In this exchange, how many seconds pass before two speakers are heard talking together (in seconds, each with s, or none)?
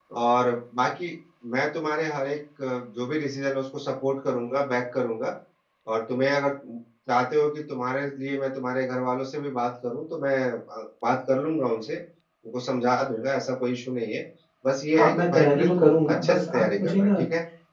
15.0 s